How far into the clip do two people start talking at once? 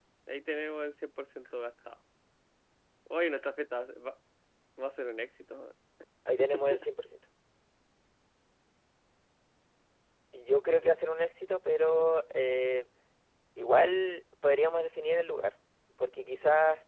none

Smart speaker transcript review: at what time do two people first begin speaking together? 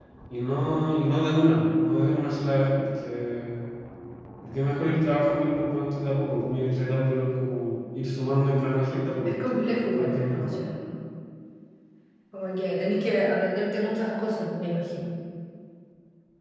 9.2 s

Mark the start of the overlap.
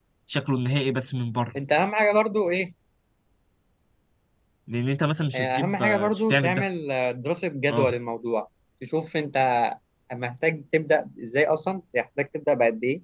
5.3 s

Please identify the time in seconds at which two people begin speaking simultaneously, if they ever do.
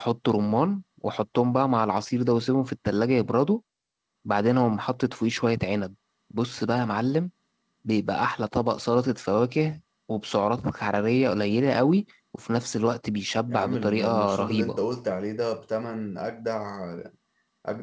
13.5 s

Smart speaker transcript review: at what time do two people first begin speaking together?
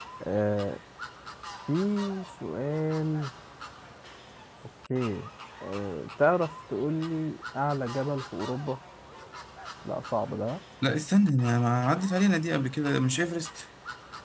none

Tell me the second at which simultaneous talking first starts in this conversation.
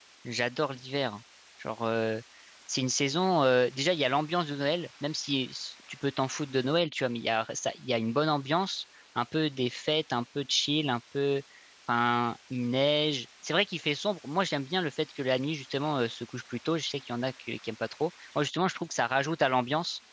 none

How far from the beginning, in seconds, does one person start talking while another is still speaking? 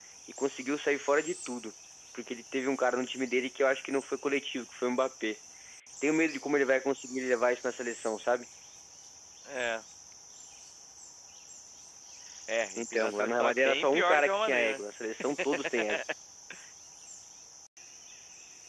12.8 s

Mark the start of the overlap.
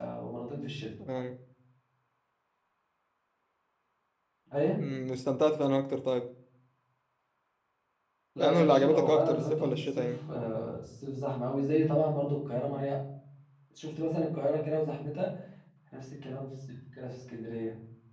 8.4 s

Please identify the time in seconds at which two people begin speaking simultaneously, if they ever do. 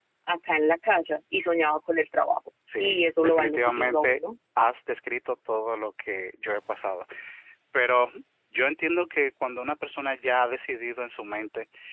2.7 s

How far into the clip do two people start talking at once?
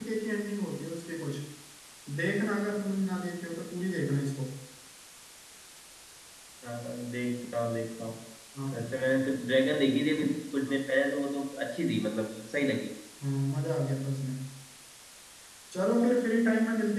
none

